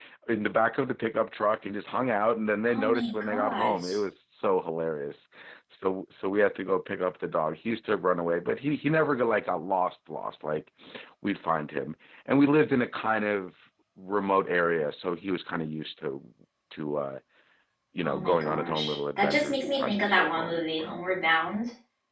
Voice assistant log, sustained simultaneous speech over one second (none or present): present